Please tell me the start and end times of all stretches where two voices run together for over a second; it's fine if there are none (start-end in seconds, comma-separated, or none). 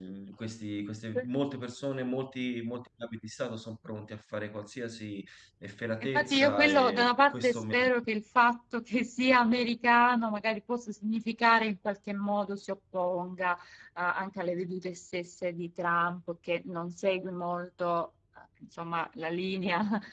6.0-7.8